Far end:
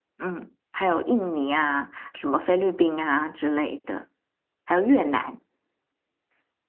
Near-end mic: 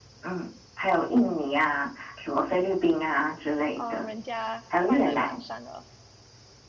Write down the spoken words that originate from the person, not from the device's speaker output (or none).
呃人家放在晚上的，